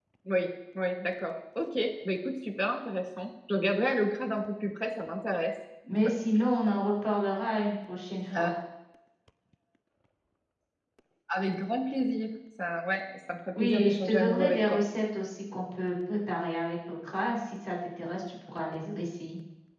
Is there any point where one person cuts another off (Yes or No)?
Yes